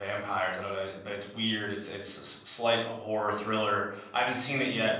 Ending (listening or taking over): listening